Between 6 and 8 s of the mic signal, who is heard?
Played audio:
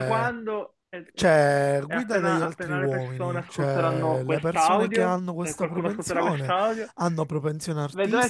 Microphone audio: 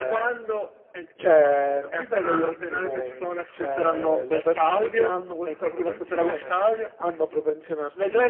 echo only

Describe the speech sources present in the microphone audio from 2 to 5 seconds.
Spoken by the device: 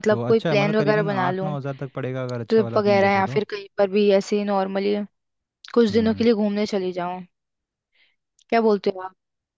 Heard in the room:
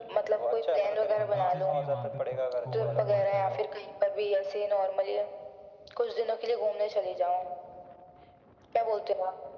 both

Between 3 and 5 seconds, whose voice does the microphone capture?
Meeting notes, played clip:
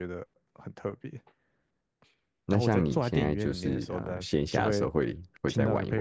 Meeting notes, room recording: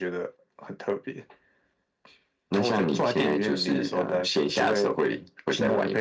echo only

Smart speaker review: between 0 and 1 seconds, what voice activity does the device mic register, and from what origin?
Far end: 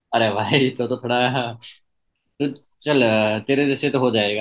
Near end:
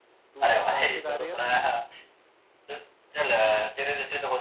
both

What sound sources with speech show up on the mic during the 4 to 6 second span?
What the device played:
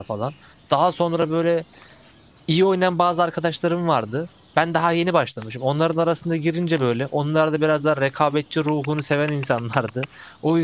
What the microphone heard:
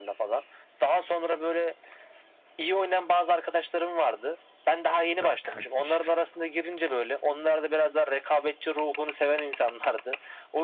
both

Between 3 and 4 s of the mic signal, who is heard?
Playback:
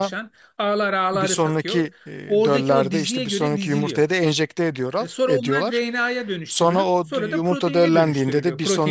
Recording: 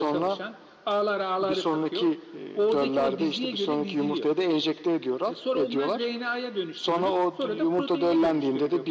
echo only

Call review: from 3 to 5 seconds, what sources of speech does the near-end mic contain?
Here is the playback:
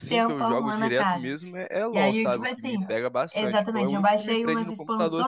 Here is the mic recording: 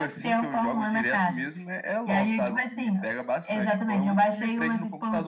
echo only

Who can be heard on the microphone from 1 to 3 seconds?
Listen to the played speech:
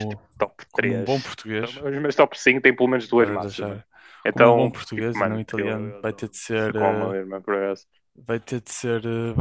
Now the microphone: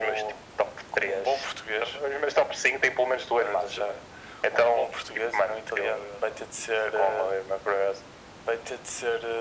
echo only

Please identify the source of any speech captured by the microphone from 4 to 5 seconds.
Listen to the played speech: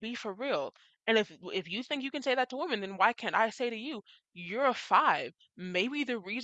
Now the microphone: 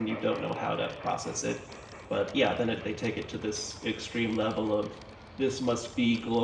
user only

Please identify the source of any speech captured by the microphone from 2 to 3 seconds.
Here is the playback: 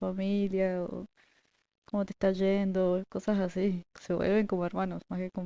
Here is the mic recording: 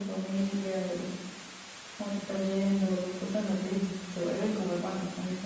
echo only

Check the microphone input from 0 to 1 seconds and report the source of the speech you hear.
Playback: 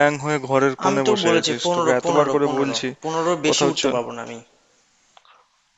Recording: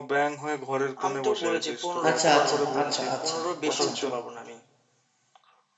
echo only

